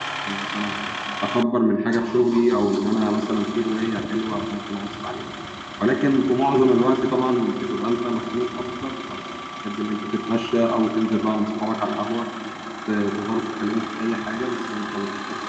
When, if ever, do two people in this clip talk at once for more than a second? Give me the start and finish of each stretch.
none

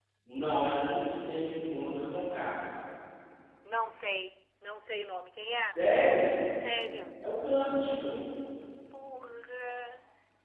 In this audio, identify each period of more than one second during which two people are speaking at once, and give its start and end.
none

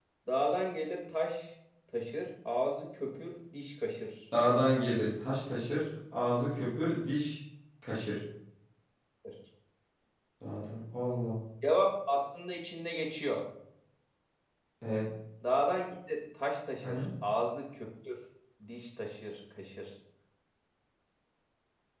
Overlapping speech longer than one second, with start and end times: none

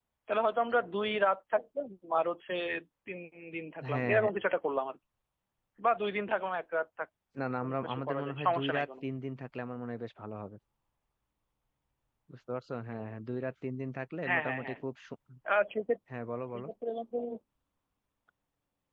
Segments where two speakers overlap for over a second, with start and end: 7.6-8.9

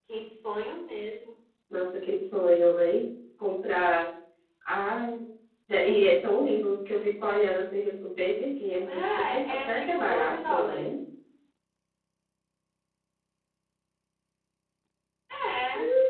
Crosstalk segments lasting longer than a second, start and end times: 8.9-11.0

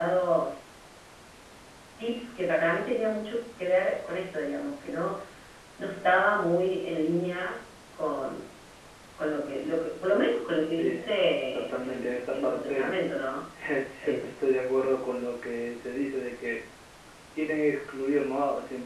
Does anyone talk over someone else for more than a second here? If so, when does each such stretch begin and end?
11.5-12.9

